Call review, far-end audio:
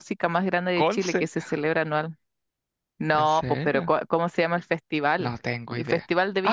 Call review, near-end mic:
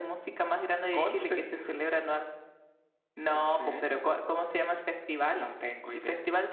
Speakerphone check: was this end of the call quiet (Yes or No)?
Yes